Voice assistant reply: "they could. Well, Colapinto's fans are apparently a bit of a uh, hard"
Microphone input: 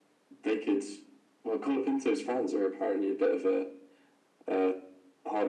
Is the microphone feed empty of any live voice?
Yes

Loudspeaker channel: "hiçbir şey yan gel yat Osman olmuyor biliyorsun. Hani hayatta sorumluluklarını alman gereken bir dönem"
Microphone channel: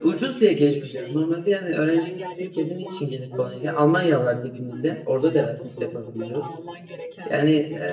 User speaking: Yes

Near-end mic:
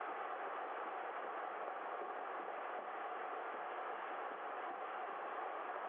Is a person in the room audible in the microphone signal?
No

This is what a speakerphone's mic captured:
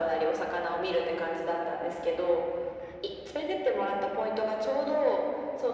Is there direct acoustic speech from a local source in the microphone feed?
No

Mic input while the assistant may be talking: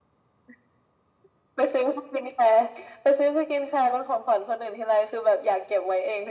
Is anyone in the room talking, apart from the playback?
No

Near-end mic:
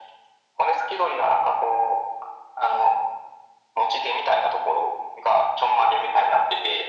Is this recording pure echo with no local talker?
Yes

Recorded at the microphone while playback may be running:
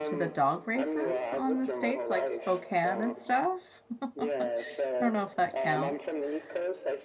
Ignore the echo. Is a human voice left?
Yes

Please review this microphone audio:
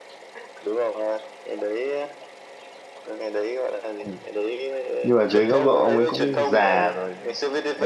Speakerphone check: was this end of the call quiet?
No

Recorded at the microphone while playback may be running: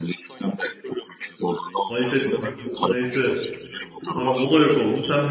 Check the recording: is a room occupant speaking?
Yes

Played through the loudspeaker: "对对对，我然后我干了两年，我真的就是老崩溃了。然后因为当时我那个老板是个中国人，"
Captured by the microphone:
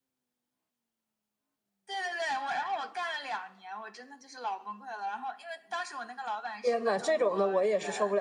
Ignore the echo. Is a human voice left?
Yes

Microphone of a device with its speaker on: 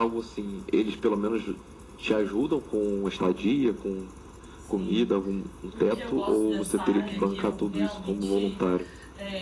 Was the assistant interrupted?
Yes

